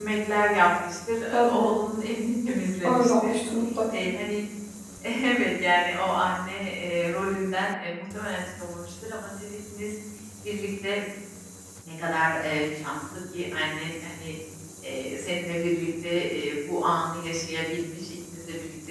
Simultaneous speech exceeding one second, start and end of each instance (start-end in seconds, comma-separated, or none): none